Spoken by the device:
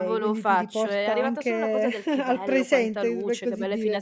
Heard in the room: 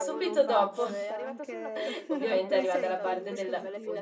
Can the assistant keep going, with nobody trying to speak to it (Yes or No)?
No